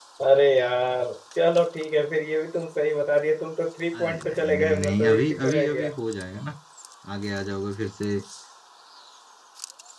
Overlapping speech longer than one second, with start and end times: 3.9-5.9

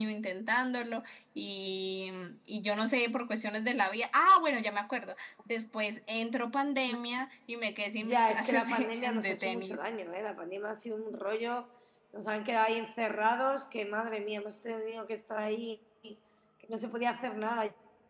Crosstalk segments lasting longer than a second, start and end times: 8.0-9.8

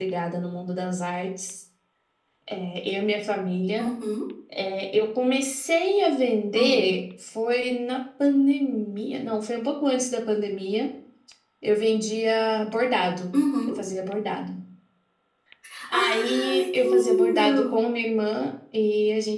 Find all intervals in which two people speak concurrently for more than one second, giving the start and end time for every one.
15.9-17.8

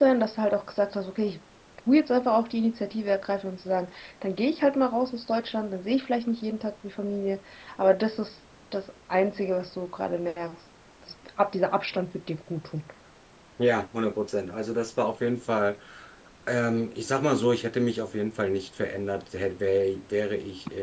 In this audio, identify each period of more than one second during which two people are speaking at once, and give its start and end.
none

